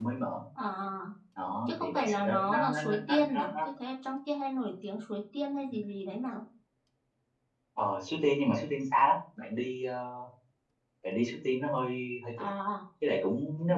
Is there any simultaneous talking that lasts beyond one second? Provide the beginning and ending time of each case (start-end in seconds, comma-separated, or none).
1.7-3.6